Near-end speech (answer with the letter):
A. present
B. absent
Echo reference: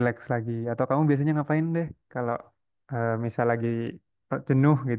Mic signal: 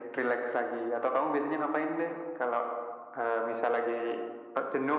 B